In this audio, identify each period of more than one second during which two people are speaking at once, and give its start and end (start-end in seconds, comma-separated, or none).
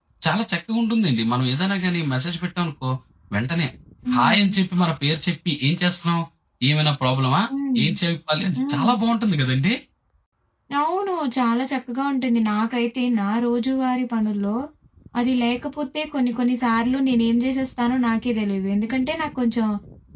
none